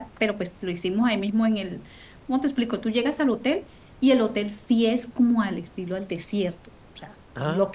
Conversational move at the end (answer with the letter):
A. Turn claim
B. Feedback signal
B